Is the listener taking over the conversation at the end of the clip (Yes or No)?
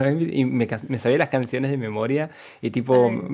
No